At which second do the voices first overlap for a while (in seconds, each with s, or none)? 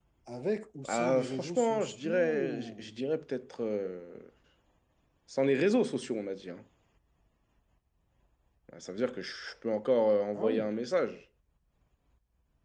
0.9 s